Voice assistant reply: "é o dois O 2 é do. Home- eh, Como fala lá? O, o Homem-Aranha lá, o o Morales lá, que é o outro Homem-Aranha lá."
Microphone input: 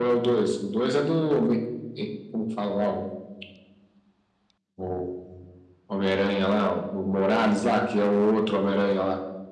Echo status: present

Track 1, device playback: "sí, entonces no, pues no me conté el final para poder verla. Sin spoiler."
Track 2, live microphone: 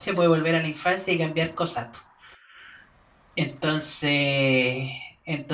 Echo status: none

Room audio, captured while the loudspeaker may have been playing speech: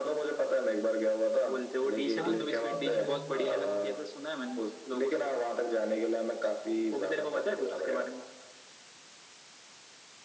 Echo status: present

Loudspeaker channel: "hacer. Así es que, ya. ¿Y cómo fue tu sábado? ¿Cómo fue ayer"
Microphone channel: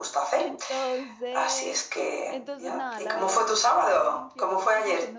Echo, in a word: present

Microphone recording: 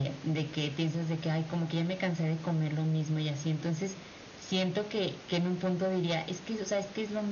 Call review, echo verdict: present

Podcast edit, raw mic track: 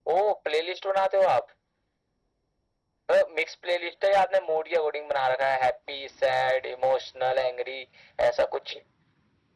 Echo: present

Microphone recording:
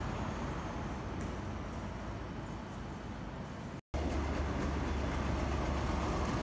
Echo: none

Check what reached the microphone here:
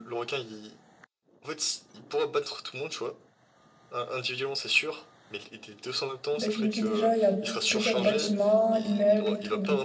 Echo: present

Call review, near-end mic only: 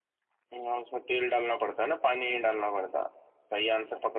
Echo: present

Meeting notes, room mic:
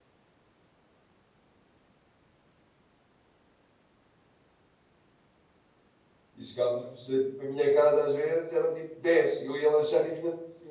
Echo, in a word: none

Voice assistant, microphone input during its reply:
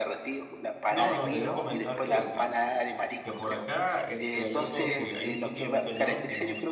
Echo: present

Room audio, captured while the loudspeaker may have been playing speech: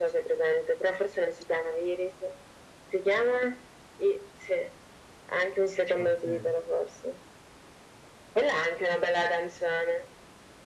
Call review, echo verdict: present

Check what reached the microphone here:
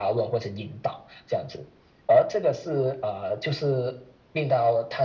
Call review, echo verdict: present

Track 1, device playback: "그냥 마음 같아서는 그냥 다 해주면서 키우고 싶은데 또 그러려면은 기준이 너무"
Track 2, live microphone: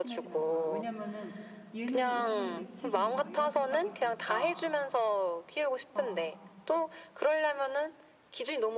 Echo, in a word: present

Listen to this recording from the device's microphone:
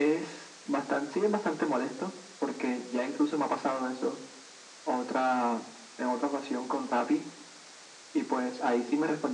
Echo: present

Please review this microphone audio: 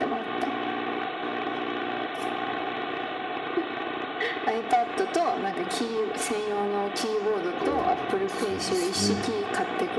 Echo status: present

